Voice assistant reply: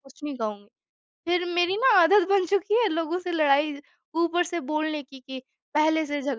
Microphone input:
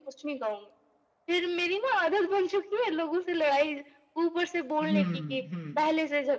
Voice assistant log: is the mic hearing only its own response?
No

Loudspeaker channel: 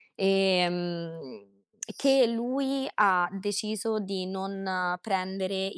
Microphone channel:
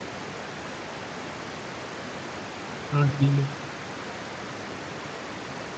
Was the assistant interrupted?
Yes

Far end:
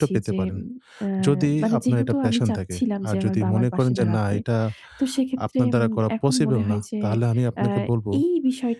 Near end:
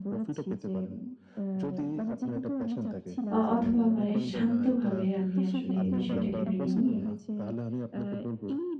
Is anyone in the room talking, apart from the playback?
Yes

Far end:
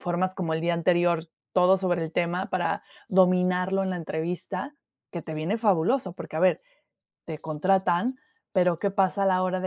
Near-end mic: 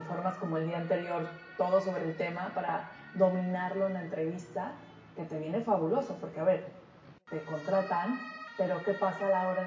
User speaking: No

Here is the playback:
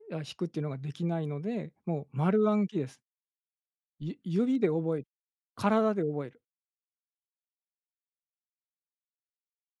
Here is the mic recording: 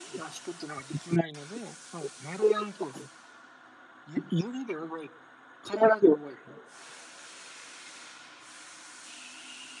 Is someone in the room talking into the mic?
No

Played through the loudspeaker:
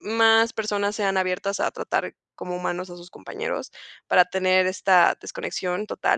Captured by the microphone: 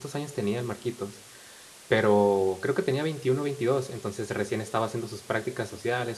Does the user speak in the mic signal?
Yes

